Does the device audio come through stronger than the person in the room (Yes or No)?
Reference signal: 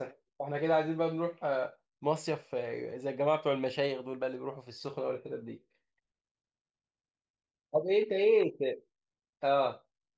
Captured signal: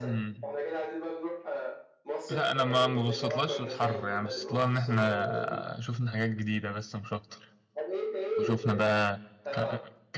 No